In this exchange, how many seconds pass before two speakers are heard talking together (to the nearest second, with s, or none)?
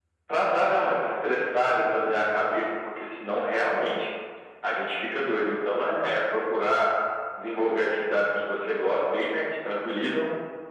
none